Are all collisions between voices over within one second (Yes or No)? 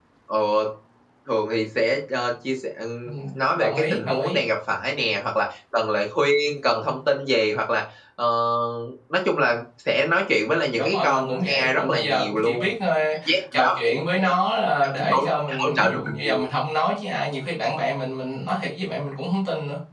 No